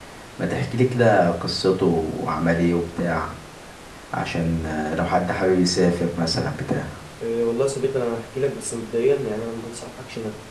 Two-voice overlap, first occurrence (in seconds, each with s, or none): none